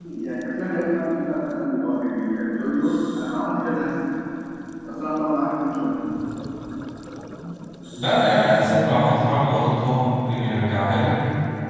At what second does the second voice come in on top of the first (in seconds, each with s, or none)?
none